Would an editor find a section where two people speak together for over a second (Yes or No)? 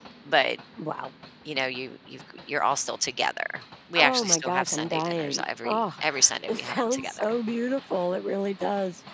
Yes